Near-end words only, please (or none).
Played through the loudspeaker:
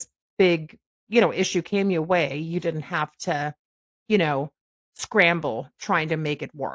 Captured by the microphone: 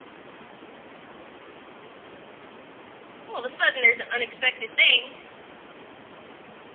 all of a sudden there's an unexpected thing